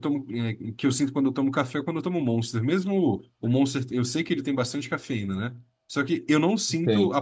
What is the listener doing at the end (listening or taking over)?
listening